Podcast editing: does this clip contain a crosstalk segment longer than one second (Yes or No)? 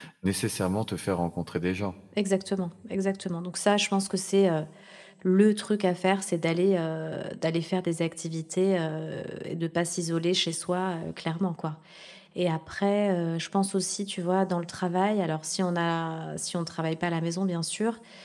No